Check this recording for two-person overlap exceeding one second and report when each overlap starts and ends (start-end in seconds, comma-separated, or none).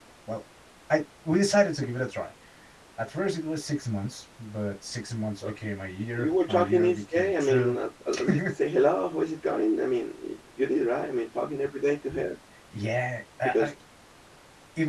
6.2-7.8